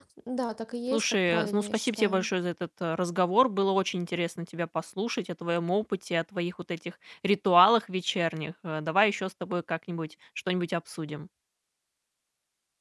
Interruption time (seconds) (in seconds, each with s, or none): 0.9 s